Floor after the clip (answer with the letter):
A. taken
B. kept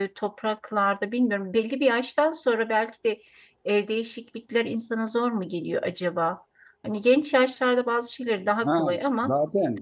A